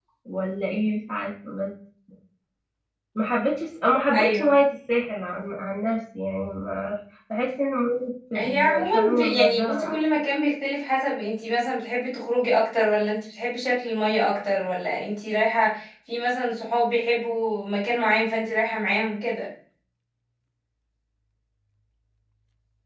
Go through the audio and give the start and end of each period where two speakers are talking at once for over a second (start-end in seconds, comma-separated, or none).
8.3-10.0